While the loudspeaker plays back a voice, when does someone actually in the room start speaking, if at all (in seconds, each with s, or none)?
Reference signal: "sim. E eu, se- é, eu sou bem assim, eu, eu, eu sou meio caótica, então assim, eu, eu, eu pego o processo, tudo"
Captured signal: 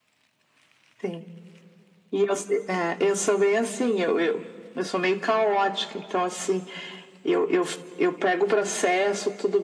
none